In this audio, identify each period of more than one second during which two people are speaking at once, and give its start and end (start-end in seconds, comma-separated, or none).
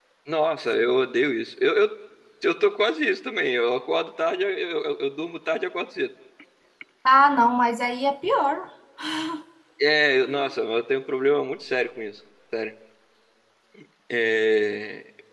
none